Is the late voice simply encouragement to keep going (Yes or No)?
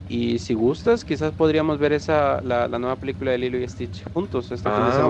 No